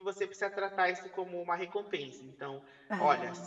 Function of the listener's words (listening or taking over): listening